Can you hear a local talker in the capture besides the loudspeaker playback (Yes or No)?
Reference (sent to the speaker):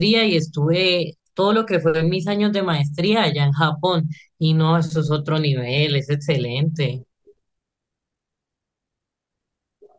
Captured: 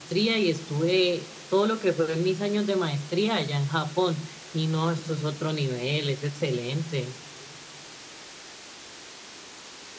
No